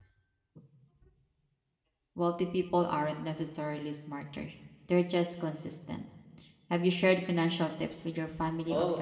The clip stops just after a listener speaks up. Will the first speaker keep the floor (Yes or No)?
No